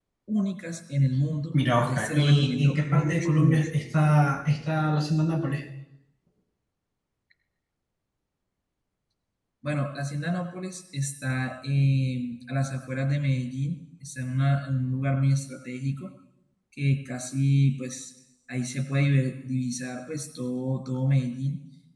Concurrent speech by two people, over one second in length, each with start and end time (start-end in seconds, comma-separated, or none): 1.5-3.7